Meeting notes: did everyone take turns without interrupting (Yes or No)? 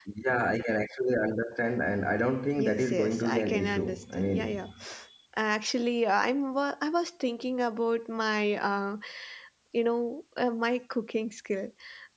No